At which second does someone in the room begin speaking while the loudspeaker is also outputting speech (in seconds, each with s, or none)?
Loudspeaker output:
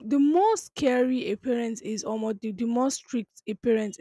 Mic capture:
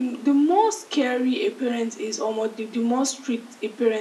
none